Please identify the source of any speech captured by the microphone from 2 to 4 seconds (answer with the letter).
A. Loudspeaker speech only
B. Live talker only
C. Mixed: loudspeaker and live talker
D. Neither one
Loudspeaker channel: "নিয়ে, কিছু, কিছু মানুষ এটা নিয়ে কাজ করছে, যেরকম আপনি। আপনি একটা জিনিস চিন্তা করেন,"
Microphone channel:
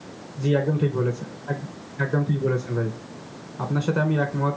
B